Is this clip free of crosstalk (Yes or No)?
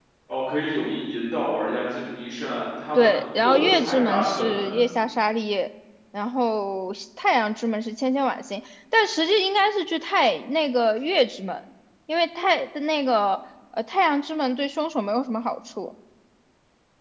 No